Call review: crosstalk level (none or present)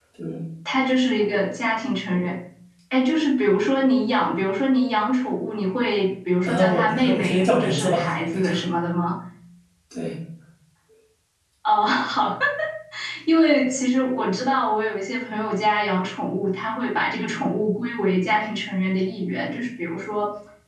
present